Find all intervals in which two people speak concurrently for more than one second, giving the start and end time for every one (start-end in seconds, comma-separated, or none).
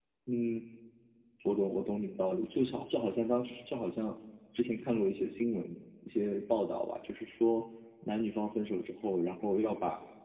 none